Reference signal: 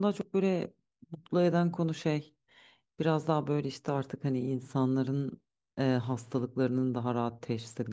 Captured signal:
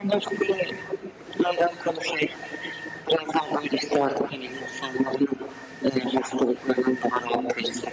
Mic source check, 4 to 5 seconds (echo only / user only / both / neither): echo only